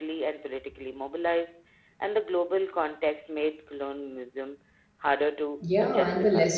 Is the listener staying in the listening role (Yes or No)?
No